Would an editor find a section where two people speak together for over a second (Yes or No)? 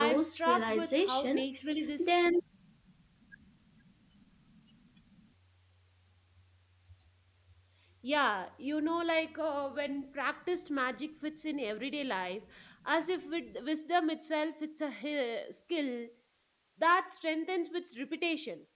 Yes